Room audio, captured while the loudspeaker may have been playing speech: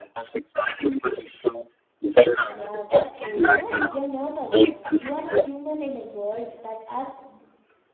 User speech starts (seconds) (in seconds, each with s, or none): 2.5 s